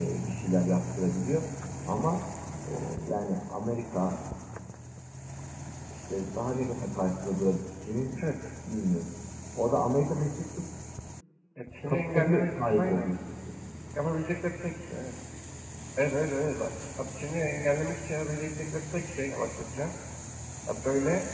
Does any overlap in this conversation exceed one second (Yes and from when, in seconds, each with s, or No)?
Yes, from 11.9 s